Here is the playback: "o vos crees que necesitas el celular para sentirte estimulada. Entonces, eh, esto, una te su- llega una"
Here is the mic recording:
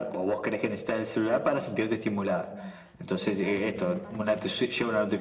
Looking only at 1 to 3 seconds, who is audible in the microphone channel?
both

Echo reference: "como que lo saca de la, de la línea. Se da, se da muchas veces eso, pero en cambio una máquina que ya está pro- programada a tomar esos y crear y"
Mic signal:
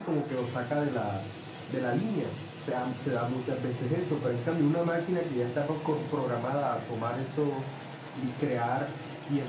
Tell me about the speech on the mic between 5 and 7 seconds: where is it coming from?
echo only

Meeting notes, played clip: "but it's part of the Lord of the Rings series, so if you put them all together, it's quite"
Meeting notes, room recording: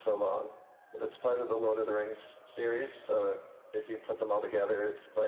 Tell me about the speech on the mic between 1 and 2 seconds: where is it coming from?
echo only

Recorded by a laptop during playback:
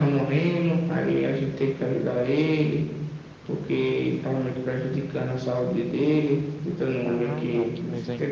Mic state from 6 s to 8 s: both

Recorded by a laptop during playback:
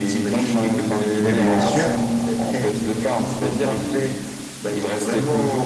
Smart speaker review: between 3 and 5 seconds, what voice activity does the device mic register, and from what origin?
echo only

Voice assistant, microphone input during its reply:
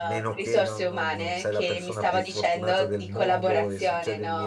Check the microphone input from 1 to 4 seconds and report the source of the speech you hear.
both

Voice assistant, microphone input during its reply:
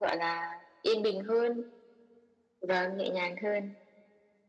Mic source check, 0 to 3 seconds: echo only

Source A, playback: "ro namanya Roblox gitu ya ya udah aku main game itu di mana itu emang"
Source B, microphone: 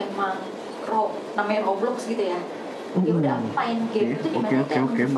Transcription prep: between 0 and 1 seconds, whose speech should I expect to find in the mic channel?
echo only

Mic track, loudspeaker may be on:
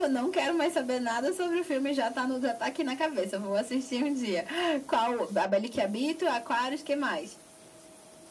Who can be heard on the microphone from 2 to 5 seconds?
echo only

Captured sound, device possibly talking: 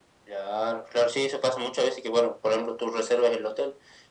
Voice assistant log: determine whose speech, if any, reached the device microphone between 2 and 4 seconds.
echo only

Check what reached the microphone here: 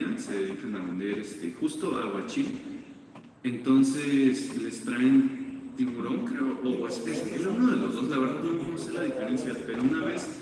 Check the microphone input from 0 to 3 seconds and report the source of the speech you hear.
echo only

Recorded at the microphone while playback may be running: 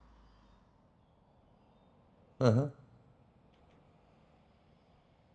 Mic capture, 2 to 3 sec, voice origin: user only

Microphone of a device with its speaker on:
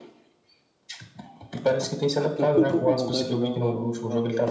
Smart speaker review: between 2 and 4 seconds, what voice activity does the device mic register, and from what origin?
both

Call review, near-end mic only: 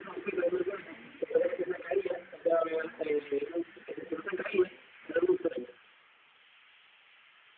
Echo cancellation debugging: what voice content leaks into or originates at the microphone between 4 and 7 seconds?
echo only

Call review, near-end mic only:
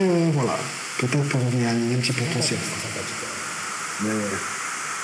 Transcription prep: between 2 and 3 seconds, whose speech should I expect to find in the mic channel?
both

